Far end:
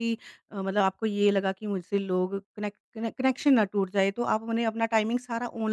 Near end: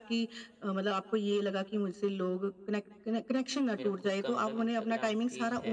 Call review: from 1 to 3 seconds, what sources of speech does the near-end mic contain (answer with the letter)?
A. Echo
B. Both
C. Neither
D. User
A